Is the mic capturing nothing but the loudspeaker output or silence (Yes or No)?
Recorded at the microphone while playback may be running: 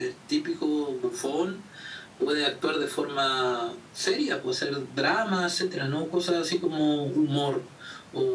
Yes